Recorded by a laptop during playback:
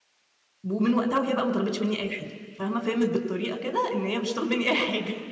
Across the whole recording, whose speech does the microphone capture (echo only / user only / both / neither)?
user only